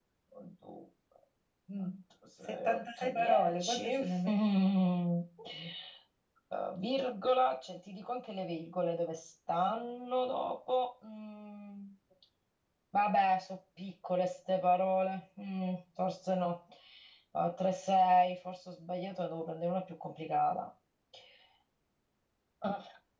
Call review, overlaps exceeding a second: present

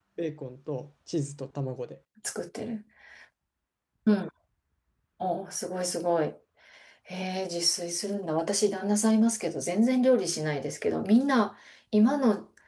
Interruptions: none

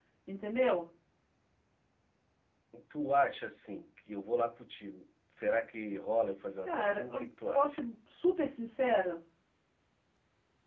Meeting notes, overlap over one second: present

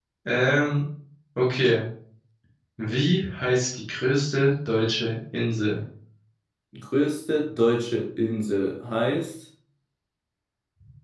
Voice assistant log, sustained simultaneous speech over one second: none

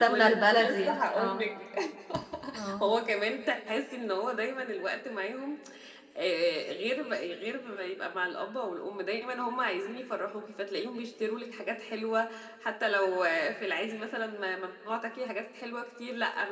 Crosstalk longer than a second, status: present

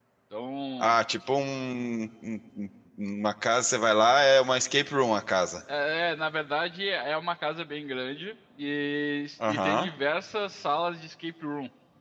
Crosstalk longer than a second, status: none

